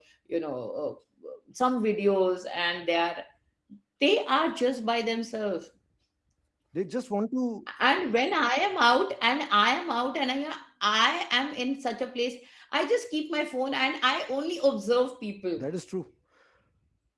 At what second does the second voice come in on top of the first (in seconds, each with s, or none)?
none